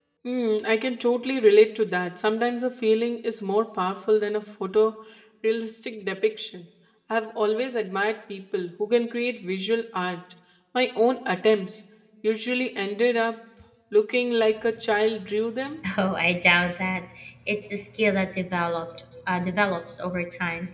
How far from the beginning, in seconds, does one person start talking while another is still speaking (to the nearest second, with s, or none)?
none